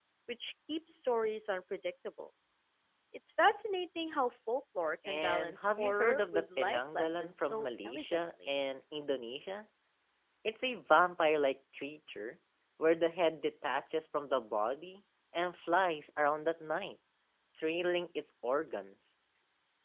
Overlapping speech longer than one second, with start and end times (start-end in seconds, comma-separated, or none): 5.1-8.5